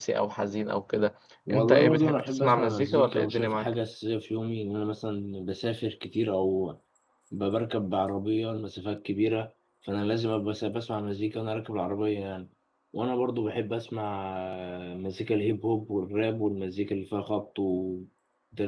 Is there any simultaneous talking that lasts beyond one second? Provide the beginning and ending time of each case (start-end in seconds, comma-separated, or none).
1.5-3.7